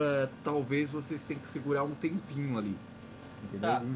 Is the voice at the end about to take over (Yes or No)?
Yes